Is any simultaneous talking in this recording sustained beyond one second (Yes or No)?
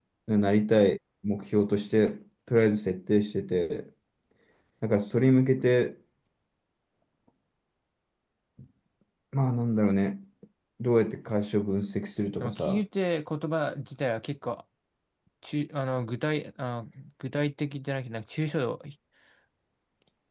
No